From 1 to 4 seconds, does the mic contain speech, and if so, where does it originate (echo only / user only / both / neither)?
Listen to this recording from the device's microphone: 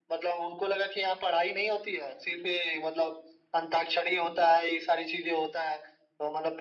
echo only